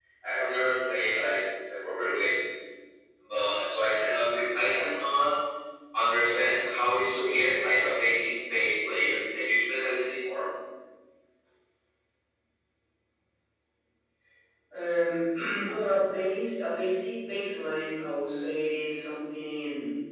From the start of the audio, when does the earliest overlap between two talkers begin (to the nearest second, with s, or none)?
none